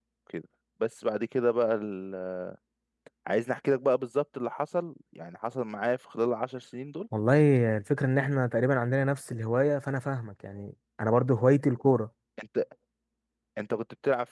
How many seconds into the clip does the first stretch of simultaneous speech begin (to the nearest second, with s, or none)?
none